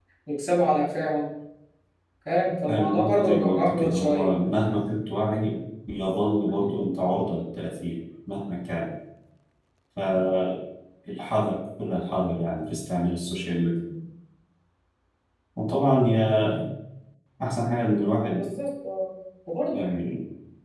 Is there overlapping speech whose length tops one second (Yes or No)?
Yes